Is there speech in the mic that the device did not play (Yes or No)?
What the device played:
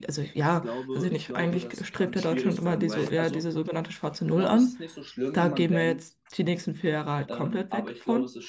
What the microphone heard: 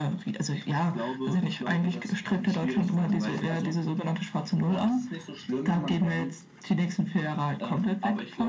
No